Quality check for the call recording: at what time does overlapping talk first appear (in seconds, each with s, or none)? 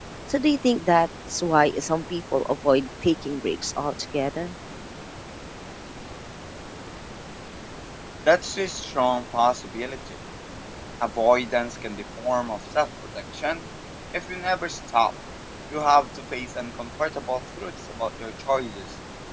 none